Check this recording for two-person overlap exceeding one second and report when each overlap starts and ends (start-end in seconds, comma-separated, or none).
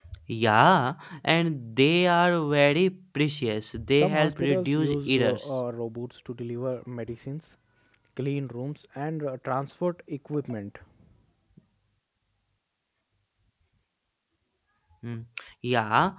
3.9-5.5